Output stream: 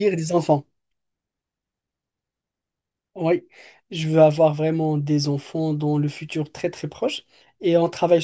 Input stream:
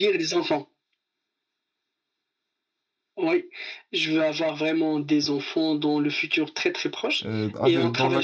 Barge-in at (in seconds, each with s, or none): 7.2 s